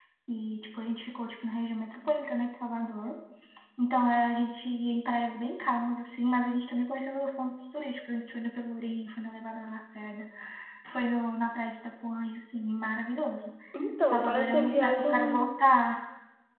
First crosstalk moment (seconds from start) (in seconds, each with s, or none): 14.0 s